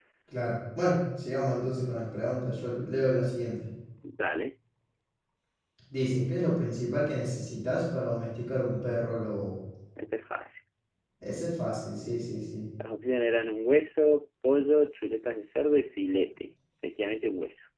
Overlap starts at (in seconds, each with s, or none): none